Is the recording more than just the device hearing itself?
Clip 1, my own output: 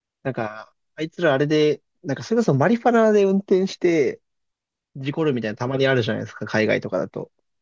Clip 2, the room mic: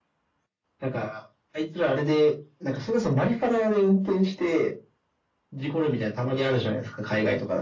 No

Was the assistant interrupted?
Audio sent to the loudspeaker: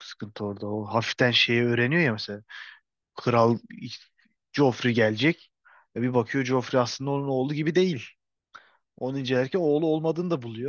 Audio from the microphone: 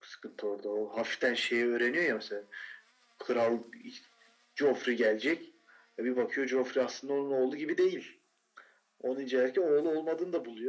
No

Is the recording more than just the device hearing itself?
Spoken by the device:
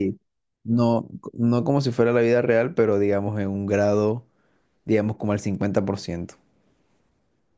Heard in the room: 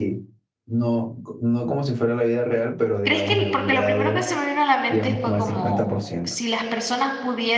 Yes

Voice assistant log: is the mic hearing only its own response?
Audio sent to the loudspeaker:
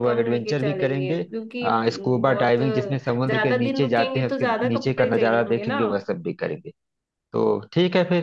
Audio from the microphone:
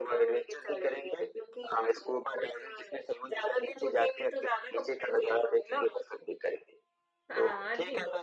No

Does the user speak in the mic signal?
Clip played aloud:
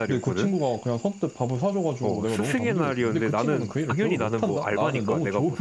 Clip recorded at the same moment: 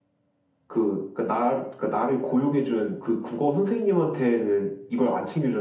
Yes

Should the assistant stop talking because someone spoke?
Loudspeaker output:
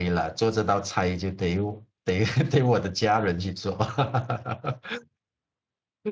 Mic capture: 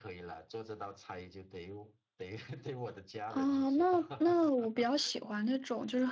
Yes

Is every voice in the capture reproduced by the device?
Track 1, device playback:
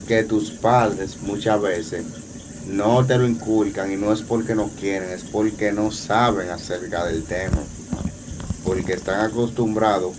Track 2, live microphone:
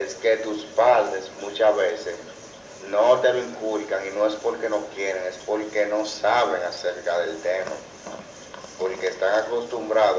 Yes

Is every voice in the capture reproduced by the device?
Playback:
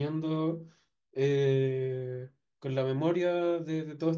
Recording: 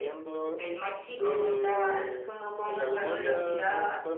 No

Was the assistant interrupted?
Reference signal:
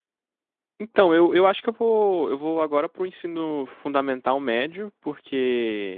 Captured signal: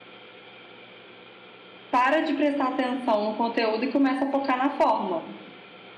Yes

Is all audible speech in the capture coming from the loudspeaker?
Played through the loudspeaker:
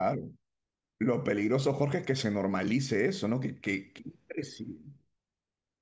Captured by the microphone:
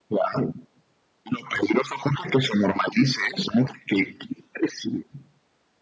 Yes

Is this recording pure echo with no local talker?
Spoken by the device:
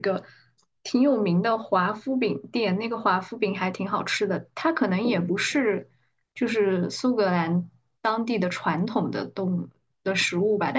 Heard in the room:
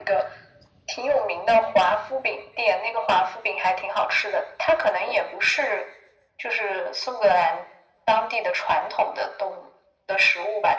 Yes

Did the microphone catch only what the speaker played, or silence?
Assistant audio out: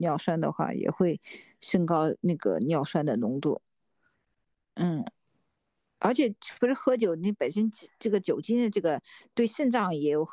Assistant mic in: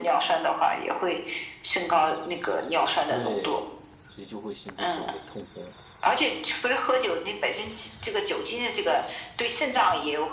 No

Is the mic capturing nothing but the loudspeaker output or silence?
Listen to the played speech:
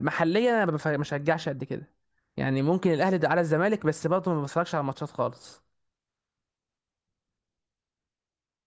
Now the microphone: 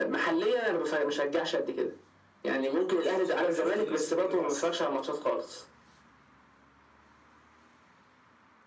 No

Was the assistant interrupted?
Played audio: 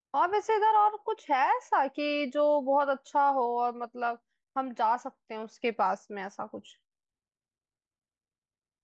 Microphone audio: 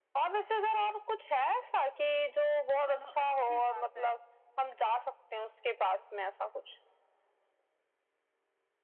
Yes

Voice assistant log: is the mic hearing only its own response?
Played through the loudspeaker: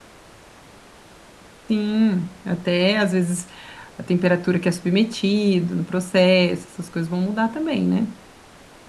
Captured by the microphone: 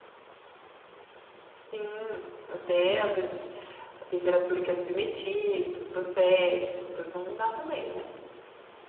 Yes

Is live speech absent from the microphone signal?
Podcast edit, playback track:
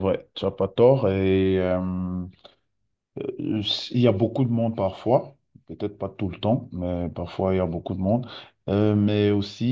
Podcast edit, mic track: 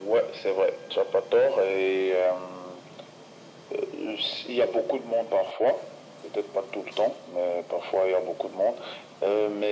Yes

